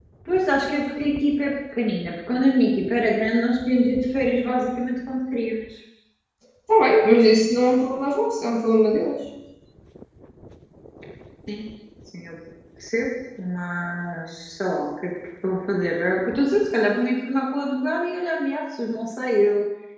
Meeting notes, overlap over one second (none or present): none